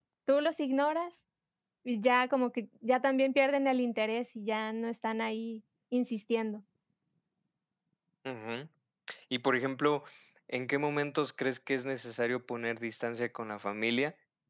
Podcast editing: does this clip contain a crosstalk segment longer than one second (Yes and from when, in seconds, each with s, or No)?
No